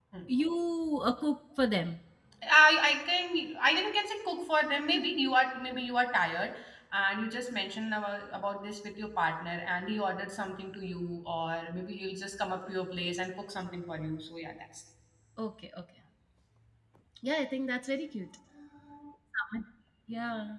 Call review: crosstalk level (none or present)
none